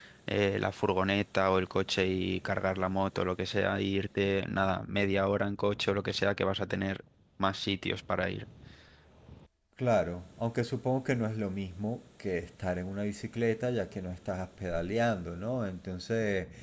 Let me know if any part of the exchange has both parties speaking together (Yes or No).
No